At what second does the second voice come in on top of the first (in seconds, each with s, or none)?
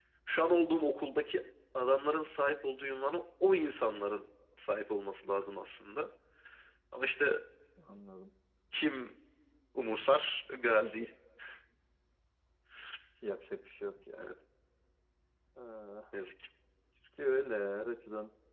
none